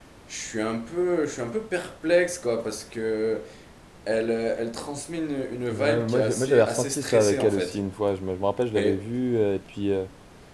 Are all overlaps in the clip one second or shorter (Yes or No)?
No